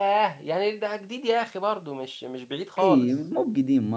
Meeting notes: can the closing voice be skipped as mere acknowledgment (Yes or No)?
No